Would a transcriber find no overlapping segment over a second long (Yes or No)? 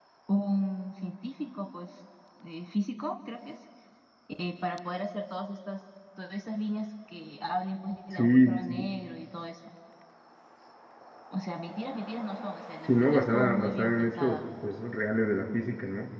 No